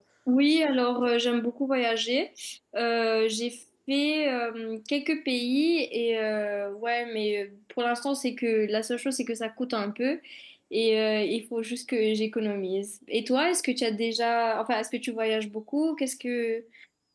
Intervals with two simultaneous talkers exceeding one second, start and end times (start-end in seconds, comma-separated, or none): none